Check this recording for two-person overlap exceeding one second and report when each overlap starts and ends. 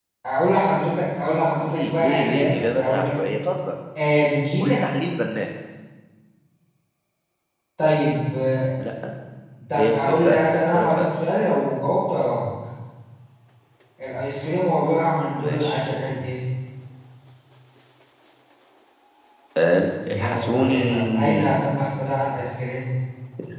1.6-3.2, 9.8-11.1, 20.1-21.6

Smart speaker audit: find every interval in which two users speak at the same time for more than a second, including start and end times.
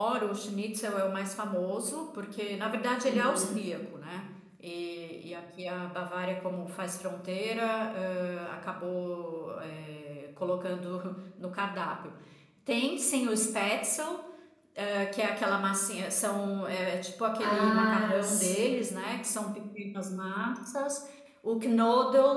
17.4-18.8

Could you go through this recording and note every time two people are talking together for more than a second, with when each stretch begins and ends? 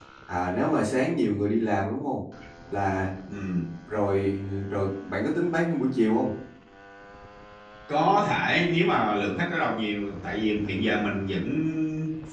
none

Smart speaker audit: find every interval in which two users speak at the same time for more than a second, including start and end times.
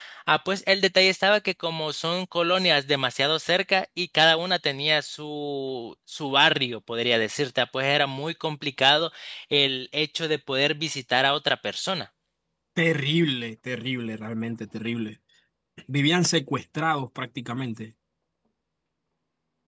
none

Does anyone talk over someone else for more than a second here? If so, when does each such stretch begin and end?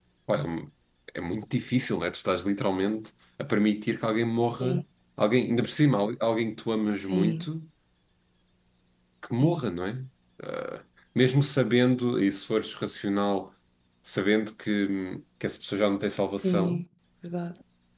none

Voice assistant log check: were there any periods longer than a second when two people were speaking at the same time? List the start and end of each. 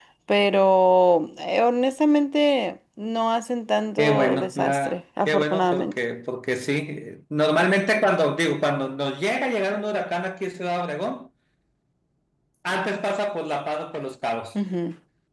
4.0-6.0

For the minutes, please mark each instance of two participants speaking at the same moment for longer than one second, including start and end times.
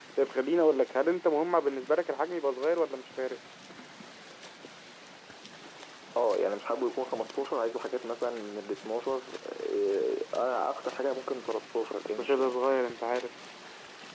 none

